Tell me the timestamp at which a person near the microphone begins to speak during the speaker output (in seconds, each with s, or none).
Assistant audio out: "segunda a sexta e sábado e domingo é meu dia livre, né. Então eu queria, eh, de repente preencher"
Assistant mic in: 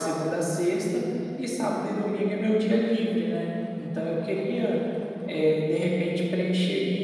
none